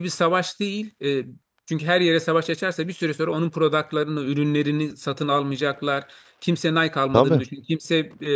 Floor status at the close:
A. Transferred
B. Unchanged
B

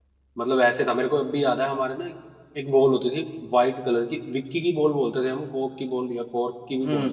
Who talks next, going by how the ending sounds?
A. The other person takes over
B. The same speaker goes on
A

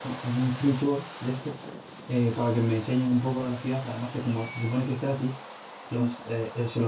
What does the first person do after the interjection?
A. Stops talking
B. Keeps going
B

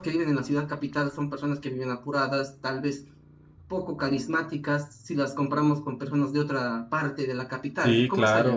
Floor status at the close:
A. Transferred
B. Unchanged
A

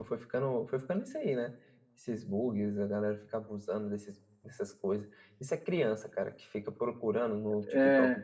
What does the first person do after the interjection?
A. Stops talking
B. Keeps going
B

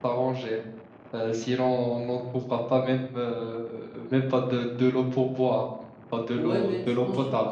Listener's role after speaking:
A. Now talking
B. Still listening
A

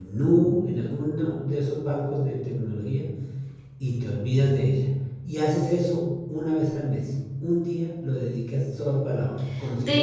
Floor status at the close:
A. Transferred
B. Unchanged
A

